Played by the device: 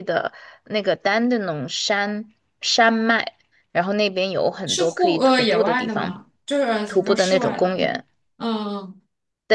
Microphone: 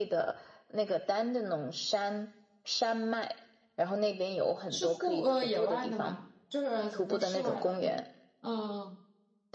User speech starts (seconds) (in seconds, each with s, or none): none